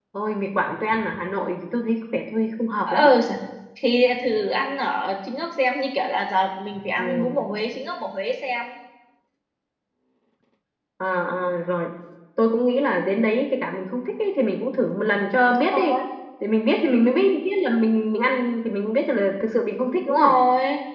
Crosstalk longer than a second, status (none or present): none